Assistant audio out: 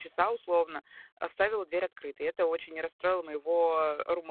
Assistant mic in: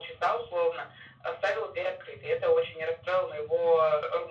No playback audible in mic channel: No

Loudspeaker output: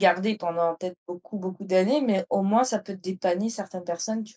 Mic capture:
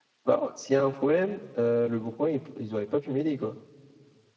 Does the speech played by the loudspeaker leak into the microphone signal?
No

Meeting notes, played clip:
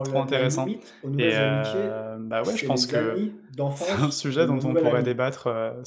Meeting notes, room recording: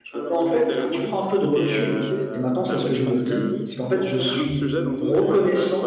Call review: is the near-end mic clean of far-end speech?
No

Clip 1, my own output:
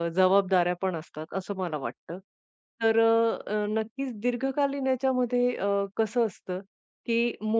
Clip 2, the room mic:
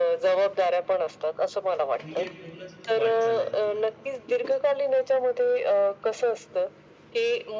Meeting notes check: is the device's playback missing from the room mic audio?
No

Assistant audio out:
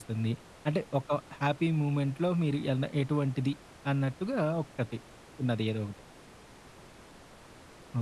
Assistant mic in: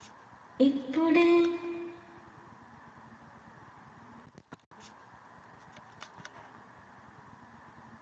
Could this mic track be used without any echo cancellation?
Yes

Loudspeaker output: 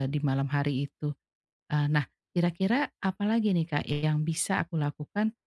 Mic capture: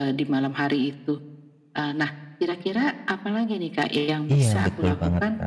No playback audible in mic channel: No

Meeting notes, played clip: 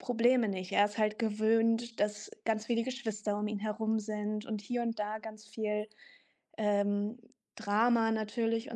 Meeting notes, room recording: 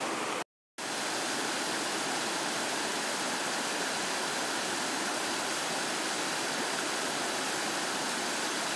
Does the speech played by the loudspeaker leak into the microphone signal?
No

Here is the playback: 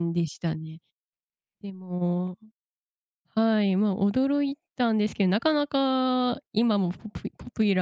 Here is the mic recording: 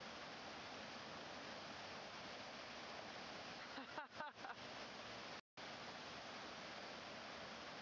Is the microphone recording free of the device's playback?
Yes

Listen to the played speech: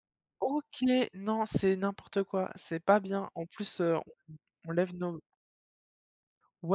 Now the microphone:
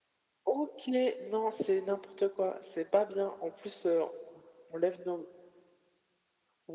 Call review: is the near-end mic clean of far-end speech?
No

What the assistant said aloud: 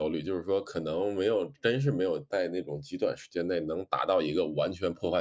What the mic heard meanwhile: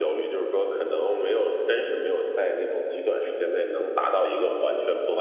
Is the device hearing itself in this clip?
Yes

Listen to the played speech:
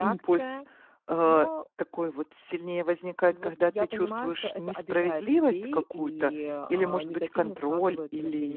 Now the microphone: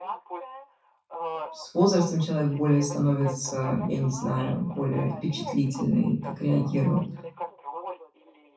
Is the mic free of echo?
No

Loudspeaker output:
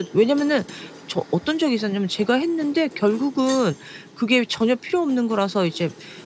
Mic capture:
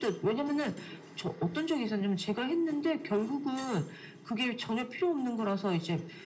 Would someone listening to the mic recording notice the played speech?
Yes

